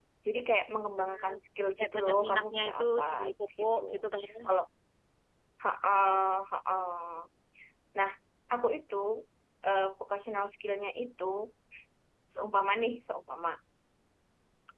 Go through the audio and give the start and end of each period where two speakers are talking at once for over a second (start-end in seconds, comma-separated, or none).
1.8-3.0